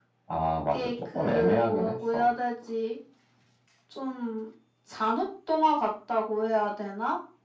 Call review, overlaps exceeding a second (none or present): present